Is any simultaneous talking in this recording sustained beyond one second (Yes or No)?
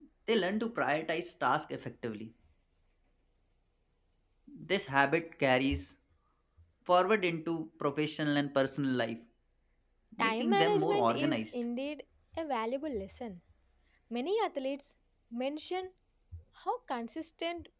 Yes